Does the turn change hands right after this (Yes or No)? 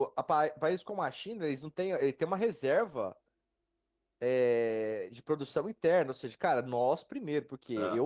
No